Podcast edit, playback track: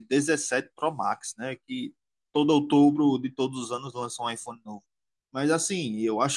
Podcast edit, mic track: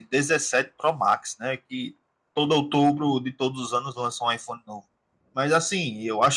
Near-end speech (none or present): none